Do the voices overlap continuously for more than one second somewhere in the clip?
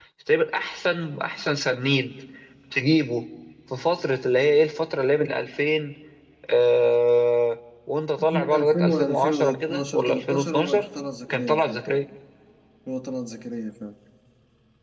Yes, from 8.3 s

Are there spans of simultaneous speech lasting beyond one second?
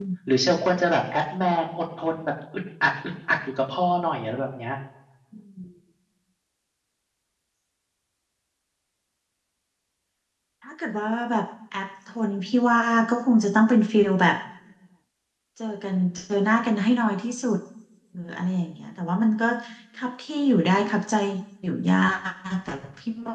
No

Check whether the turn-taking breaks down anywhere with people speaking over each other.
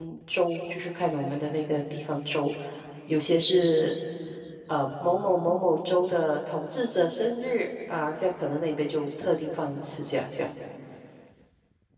No

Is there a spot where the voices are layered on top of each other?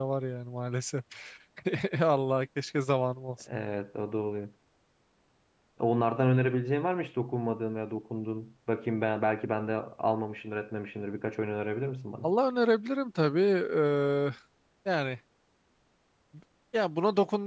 No

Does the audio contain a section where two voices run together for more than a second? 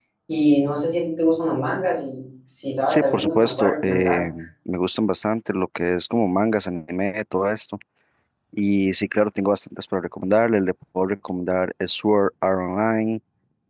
Yes, from 2.9 s

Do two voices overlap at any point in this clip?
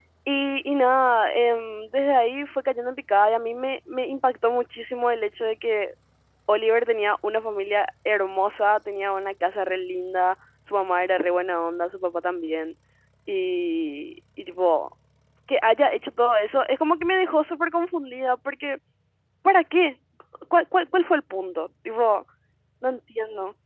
No

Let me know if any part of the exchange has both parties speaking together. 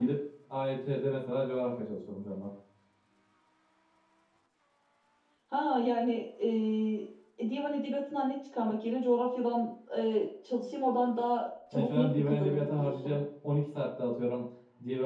Yes, from 11.7 s

